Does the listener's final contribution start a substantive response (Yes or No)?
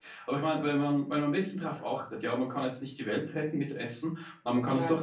No